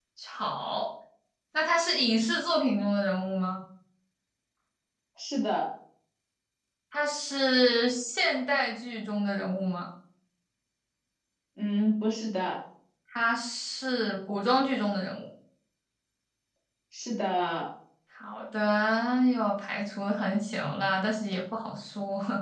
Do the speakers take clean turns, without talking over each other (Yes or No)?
Yes